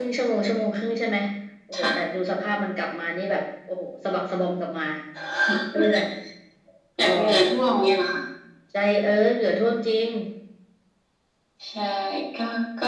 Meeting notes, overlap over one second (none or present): none